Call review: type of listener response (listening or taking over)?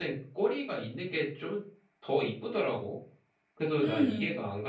listening